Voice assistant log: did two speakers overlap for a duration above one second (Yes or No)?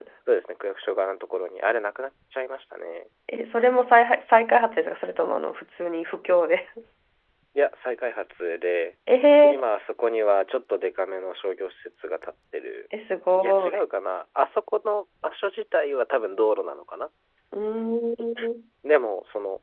No